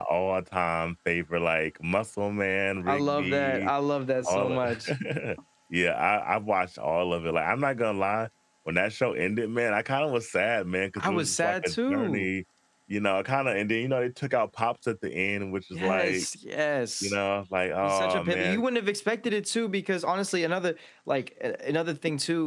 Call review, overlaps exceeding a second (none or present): present